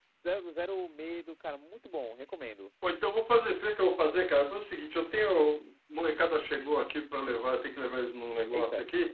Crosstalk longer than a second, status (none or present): none